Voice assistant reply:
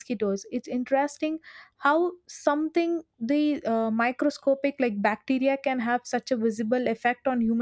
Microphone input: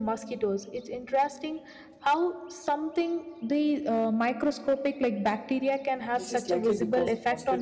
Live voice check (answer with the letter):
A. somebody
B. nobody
A